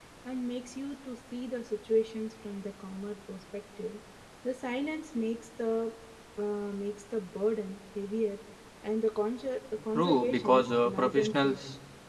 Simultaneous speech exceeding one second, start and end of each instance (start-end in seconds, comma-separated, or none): 9.9-11.6